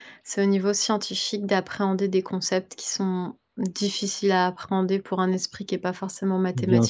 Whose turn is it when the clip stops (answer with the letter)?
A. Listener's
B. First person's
A